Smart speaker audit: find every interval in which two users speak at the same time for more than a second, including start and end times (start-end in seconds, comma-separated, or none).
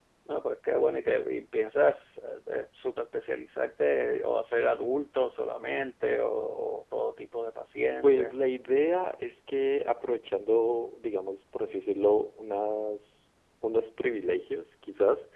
none